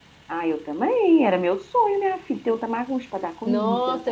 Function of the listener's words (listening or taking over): taking over